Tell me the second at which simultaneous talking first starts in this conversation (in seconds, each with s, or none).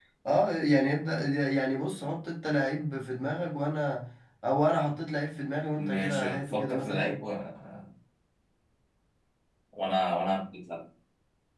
5.8 s